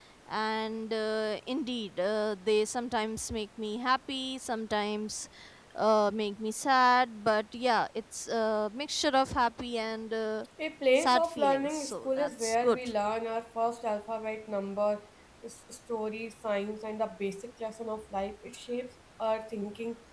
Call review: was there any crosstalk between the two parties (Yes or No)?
Yes